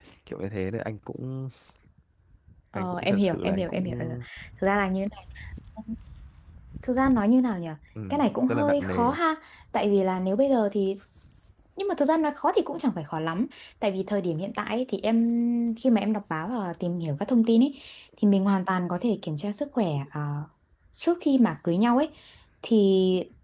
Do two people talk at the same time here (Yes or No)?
Yes